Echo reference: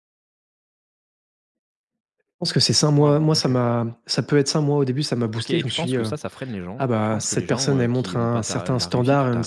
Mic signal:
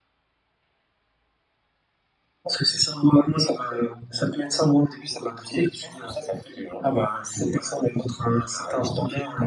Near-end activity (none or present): none